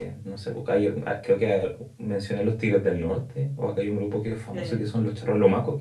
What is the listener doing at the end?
listening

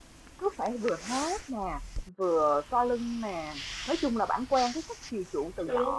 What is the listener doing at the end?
listening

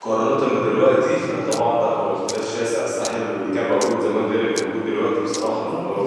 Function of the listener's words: taking over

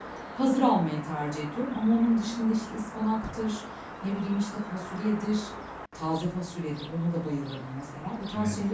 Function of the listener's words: listening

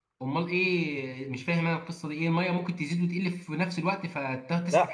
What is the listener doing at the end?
taking over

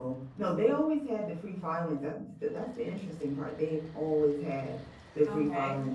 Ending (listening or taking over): listening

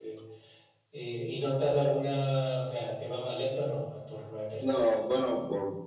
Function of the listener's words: taking over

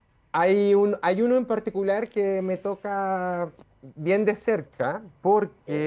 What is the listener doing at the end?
listening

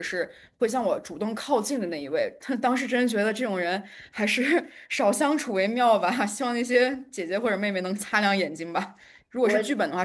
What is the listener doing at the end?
listening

